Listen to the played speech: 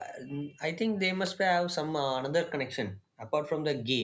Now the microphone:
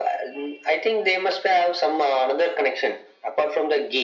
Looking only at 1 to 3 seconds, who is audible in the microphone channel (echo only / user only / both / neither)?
echo only